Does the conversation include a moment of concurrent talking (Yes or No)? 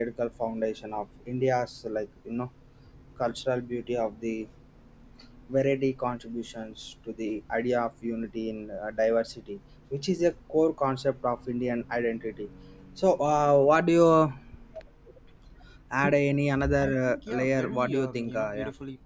Yes